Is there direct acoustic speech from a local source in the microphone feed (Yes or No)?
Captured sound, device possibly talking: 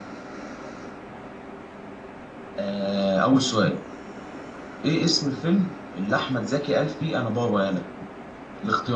Yes